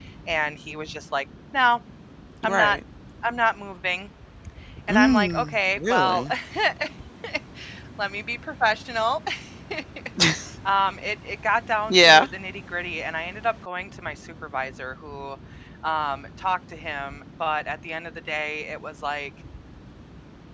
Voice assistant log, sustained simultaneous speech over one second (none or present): present